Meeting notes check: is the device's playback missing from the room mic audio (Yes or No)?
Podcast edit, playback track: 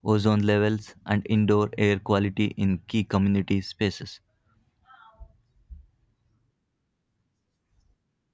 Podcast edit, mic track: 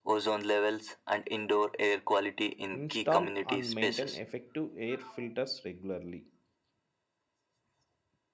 No